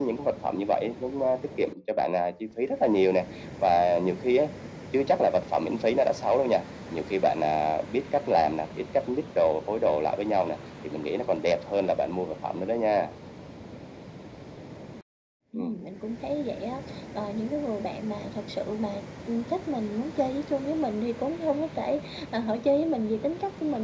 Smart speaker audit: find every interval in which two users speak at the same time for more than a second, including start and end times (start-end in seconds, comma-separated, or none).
none